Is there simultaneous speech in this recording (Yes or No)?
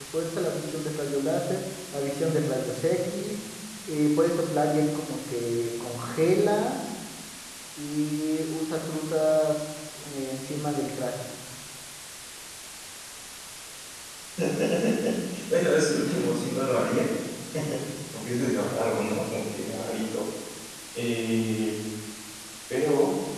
No